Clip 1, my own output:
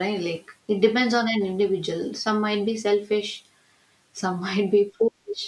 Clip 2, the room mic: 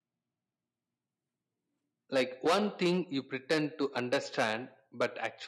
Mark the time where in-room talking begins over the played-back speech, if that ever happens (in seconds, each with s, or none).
2.1 s